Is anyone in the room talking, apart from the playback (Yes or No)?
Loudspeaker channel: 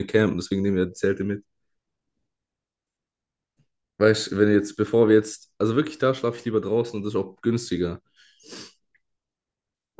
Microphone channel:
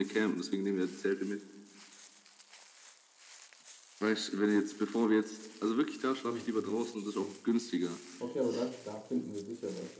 Yes